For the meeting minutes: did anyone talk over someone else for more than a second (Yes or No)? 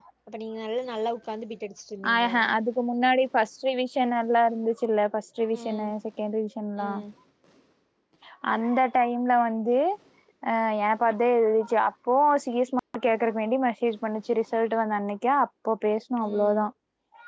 No